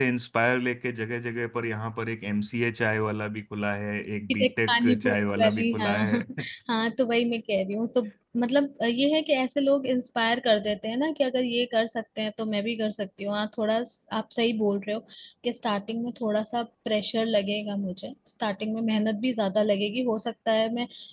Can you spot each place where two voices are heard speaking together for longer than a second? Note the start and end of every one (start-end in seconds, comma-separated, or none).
4.3-6.2